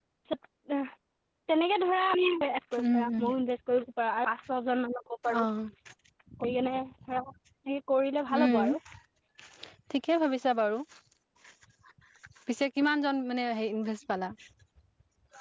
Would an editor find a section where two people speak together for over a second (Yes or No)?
No